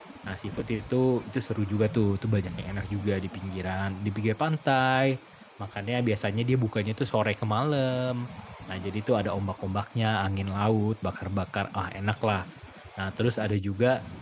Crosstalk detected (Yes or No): No